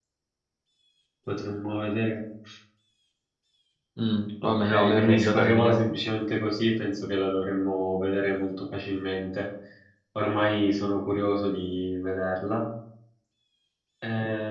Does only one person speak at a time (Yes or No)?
No